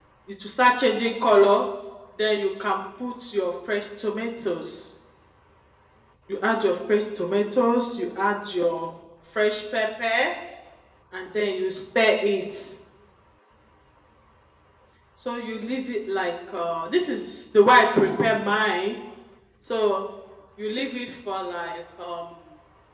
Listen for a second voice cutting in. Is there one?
No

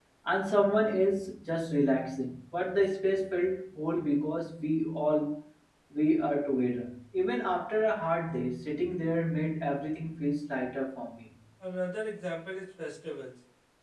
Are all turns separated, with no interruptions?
Yes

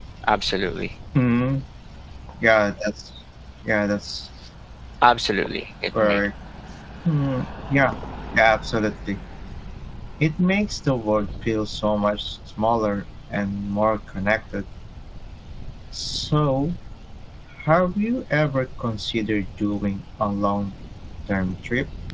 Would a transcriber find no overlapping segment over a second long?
Yes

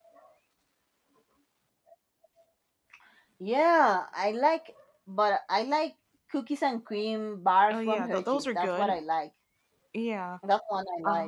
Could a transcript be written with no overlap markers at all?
No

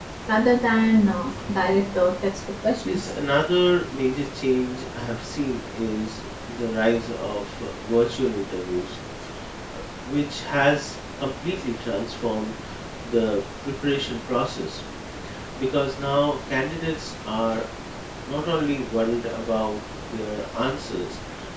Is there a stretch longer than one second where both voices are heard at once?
No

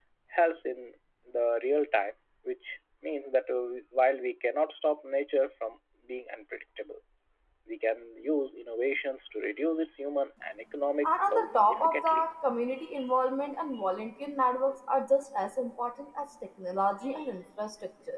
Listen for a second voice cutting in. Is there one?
Yes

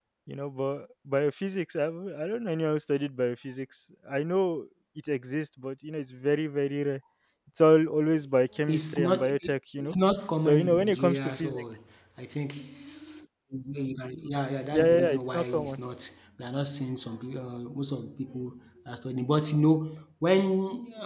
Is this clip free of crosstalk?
No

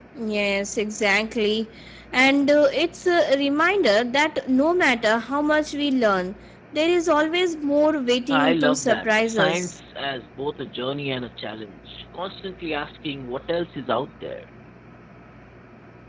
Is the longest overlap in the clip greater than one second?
Yes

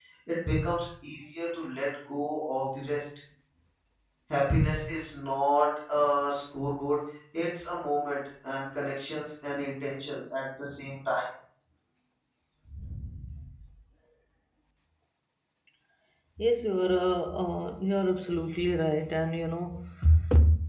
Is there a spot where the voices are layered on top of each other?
No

